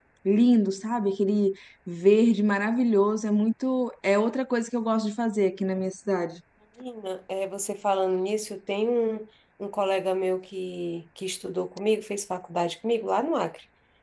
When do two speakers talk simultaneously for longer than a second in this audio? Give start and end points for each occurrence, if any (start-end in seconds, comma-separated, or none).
none